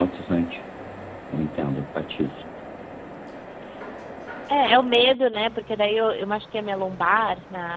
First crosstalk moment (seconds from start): none

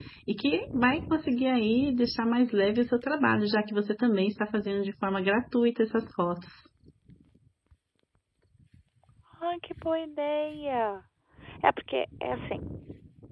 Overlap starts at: none

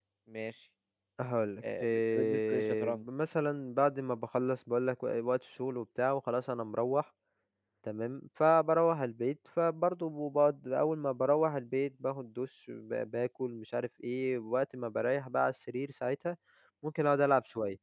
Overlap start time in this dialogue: 1.8 s

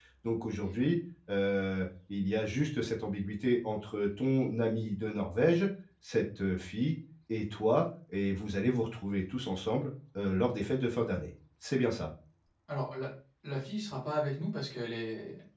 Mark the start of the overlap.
none

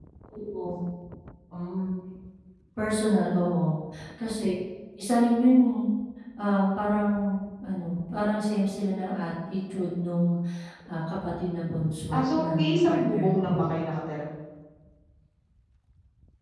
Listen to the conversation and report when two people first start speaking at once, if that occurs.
12.1 s

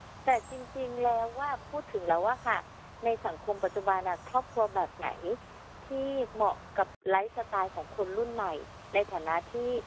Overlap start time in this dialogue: none

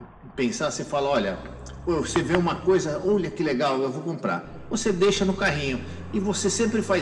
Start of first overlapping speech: none

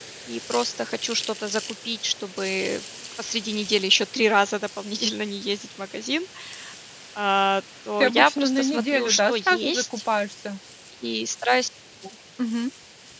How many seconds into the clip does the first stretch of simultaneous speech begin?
8.0 s

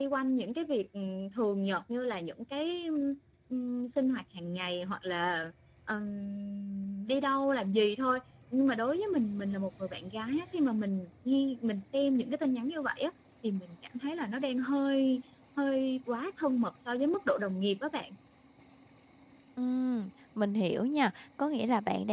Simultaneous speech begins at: none

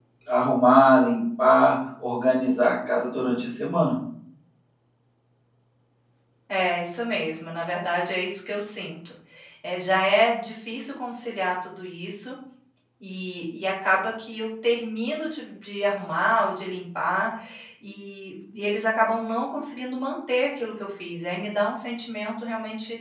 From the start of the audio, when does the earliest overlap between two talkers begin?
none

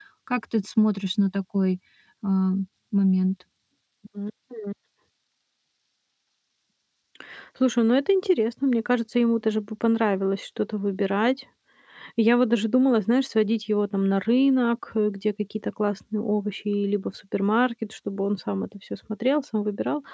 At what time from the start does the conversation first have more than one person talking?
none

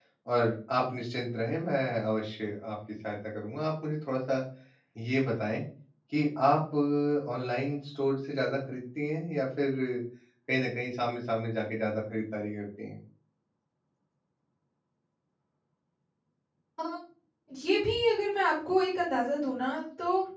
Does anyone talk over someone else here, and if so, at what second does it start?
none

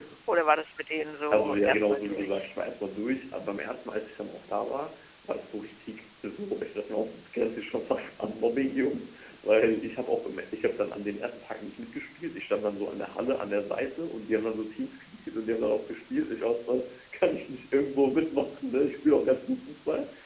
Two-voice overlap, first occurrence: 1.3 s

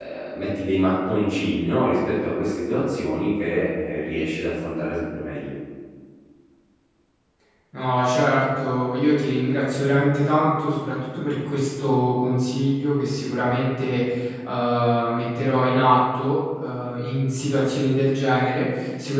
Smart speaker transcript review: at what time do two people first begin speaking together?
none

